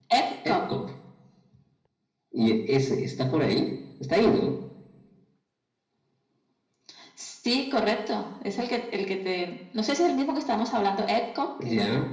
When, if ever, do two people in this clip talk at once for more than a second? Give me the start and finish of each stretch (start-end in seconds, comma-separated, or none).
none